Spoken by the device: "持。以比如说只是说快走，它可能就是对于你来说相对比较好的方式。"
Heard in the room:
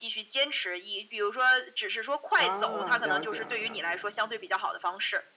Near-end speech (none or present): present